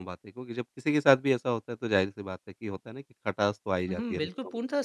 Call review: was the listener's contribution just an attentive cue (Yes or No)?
No